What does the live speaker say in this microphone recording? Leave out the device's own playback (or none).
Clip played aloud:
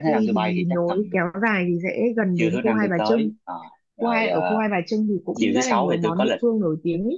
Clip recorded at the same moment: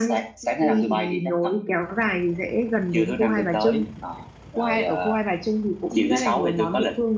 none